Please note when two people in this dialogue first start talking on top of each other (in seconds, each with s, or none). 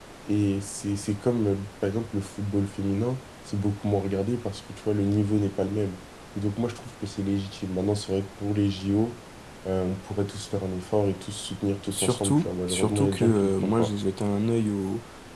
11.9 s